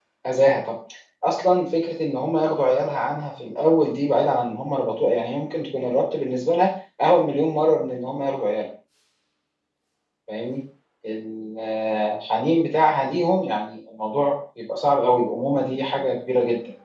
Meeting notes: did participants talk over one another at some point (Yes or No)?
No